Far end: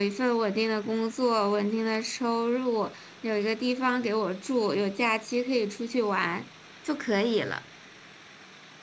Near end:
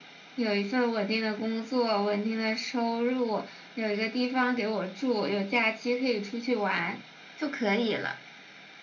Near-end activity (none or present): none